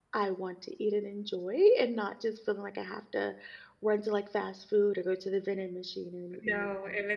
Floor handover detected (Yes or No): Yes